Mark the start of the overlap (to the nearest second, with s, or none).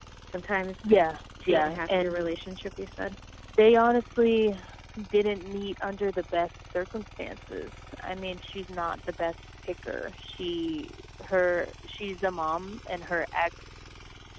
1 s